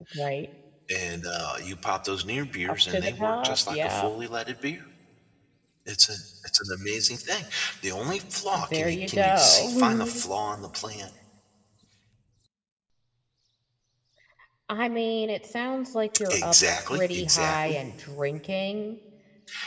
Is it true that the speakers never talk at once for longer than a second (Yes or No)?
No